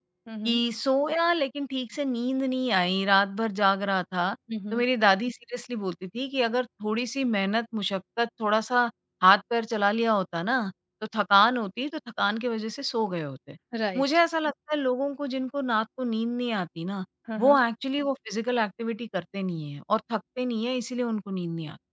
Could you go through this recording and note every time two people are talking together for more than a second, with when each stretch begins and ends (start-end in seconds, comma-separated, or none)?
none